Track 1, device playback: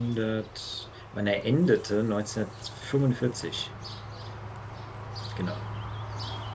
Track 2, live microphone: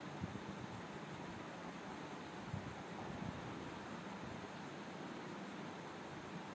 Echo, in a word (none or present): none